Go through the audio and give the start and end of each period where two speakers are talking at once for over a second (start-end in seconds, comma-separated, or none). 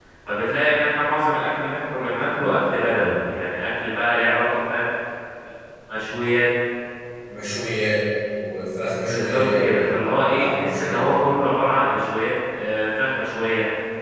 9.1-11.2